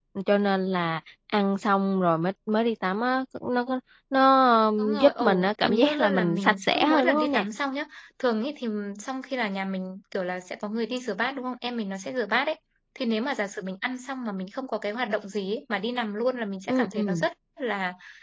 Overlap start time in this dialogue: 4.8 s

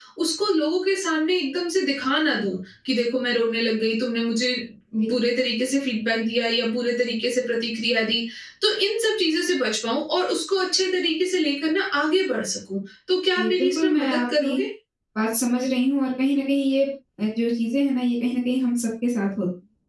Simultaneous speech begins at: 13.4 s

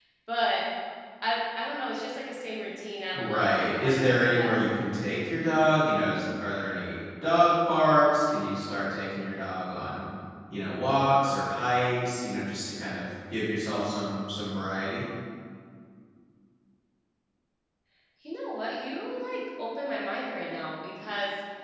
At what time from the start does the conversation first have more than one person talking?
3.1 s

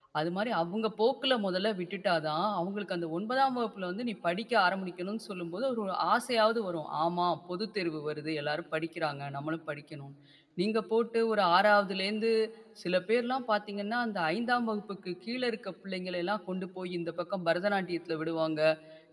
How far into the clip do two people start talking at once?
none

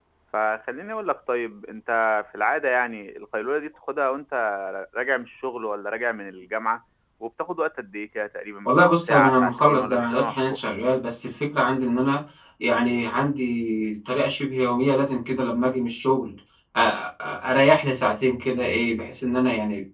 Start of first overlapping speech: 8.6 s

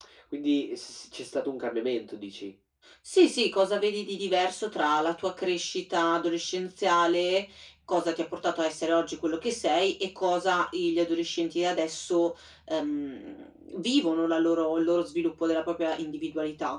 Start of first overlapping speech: none

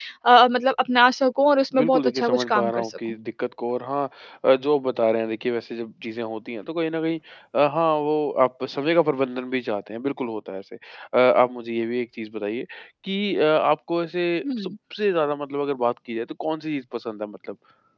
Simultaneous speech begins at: 1.8 s

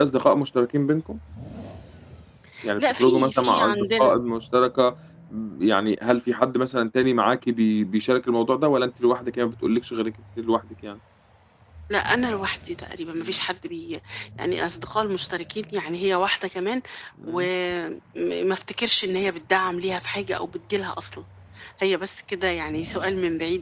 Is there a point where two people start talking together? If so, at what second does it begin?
2.8 s

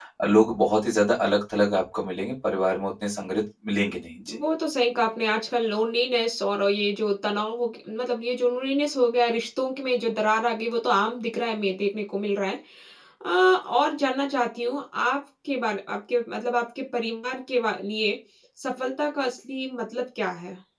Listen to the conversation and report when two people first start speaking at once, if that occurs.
none

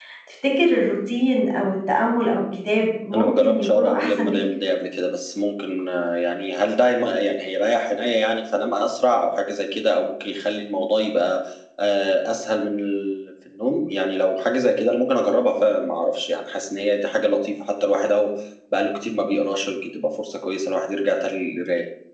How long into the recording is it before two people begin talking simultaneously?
3.1 s

